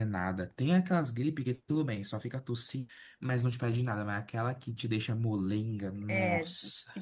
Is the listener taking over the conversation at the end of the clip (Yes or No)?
Yes